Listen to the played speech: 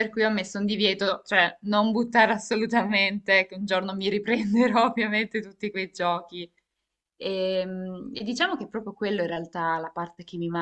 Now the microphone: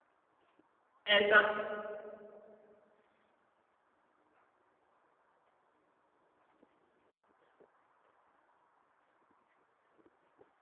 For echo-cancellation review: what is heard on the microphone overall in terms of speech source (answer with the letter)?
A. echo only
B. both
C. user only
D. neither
C